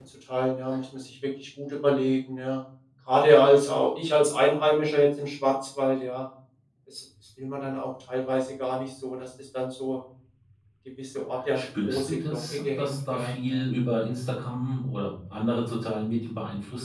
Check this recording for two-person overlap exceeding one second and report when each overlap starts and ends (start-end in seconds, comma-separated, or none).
11.5-13.6